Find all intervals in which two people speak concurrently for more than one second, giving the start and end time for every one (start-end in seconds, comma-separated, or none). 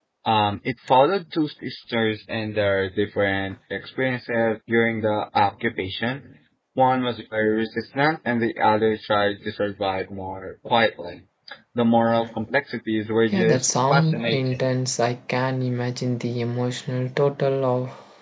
13.3-14.6